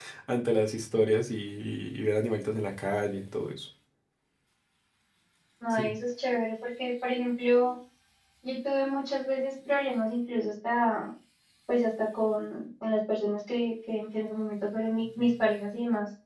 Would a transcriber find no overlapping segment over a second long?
Yes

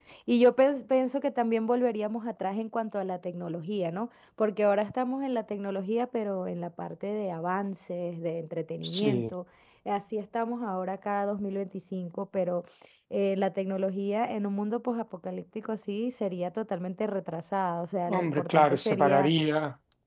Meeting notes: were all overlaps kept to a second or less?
No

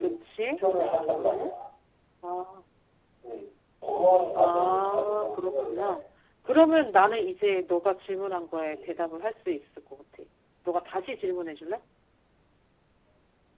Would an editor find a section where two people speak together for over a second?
Yes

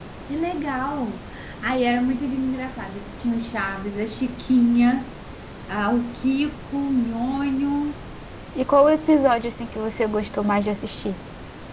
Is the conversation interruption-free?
Yes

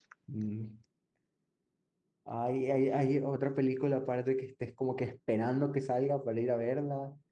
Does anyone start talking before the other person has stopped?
No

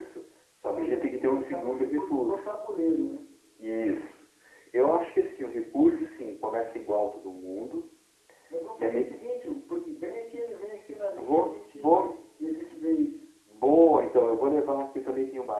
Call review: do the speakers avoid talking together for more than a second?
No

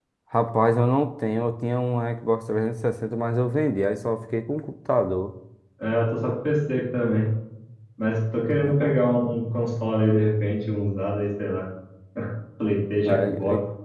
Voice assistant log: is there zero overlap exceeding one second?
Yes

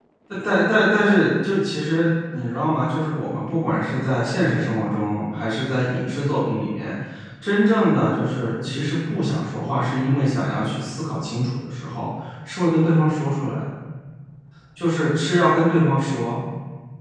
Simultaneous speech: No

